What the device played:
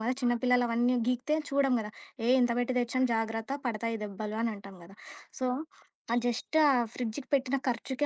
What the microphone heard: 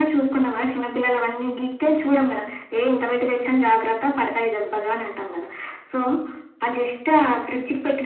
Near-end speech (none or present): none